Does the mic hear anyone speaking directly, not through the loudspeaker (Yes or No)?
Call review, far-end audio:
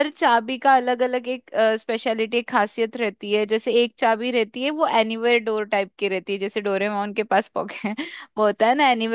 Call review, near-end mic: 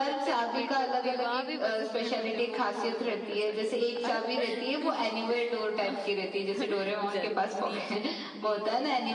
Yes